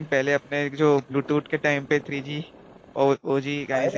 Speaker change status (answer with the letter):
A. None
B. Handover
B